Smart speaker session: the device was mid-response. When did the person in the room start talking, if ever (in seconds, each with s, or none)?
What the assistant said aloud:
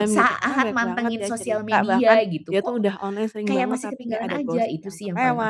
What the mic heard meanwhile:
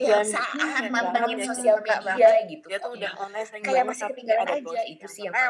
0.5 s